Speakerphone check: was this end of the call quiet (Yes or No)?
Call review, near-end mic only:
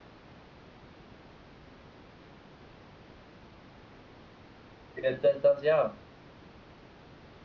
No